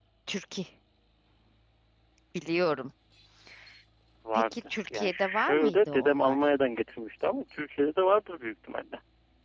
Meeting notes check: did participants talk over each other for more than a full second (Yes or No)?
Yes